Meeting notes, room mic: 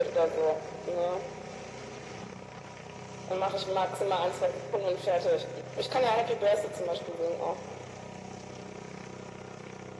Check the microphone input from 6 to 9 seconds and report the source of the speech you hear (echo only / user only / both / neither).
echo only